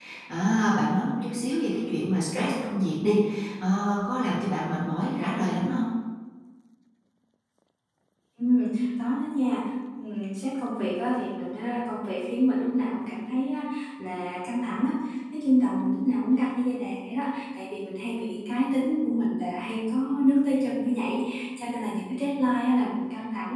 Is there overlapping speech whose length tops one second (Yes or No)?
No